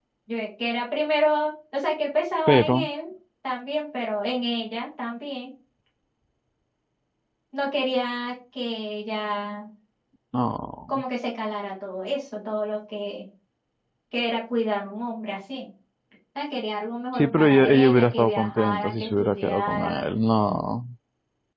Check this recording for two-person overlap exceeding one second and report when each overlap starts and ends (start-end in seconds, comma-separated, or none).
17.2-20.0